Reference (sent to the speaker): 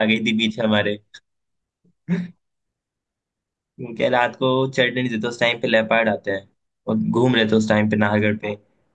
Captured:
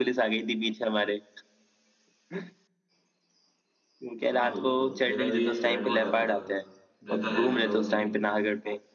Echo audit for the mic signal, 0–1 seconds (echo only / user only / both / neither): echo only